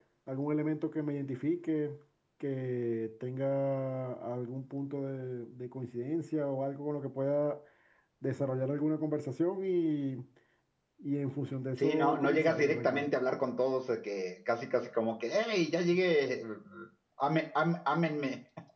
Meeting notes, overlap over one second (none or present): present